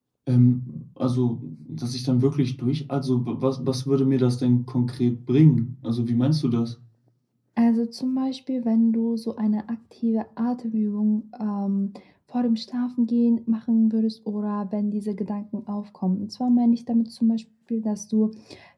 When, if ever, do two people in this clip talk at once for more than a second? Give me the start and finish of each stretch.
none

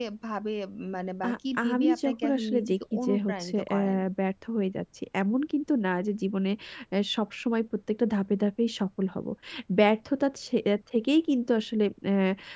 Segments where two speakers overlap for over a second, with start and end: 1.8-3.8

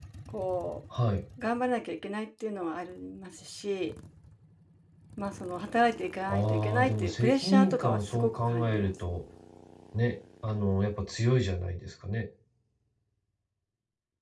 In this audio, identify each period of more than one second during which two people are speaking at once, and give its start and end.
6.3-8.9

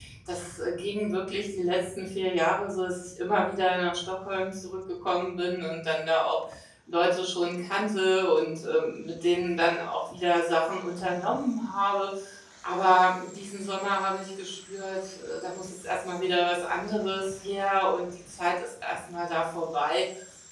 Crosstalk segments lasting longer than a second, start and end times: none

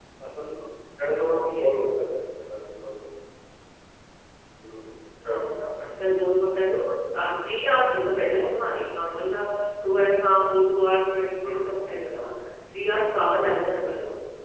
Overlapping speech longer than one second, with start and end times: none

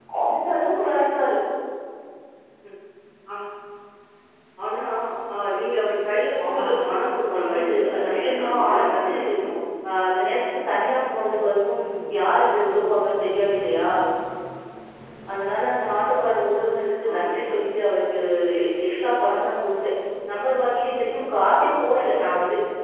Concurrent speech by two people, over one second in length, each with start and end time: 7.3-9.1

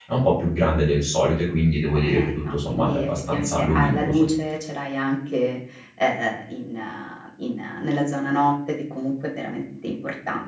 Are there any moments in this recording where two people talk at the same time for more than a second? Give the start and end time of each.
1.9-4.3

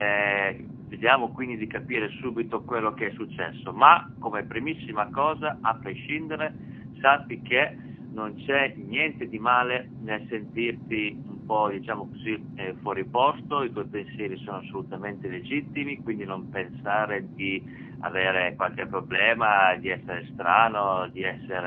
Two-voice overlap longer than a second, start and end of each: none

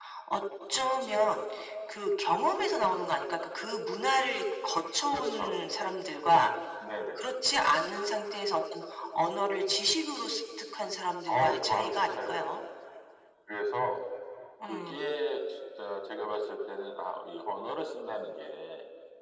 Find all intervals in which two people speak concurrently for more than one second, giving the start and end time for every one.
11.3-12.6

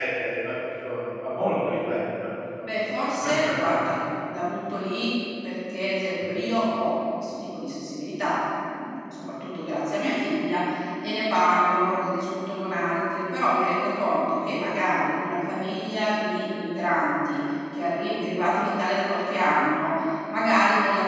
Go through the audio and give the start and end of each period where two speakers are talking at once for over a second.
none

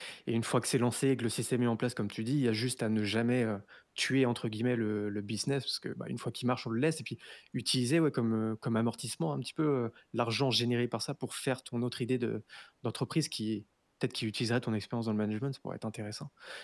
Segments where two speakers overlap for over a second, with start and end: none

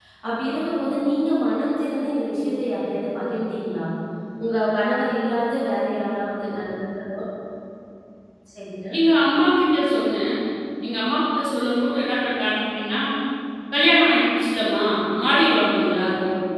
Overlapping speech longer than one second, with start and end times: none

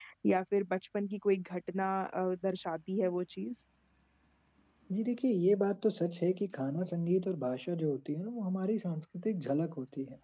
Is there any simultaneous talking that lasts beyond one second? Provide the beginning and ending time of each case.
none

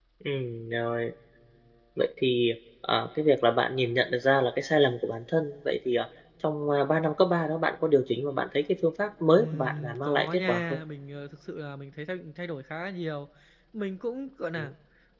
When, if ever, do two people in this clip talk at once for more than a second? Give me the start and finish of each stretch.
9.4-10.8

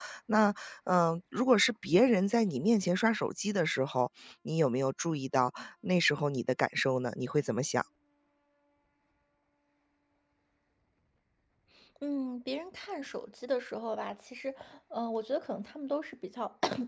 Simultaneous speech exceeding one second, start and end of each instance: none

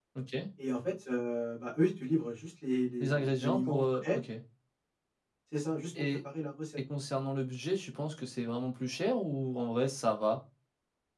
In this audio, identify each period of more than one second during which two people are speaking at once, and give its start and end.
3.0-4.2

